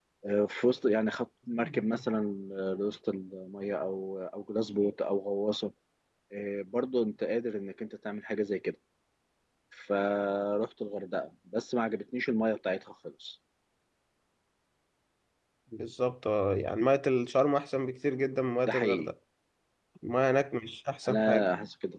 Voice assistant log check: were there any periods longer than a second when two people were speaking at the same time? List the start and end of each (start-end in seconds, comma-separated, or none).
none